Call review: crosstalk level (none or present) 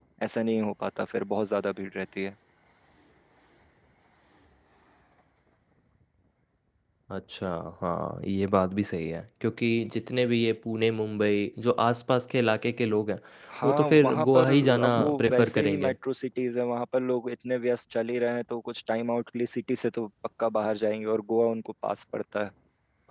present